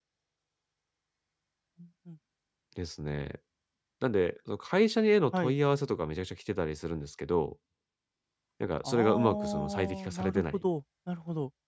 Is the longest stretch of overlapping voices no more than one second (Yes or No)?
No